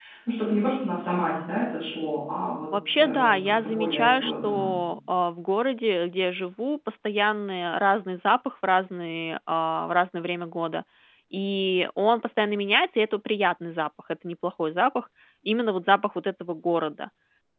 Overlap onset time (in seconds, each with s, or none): 3.0 s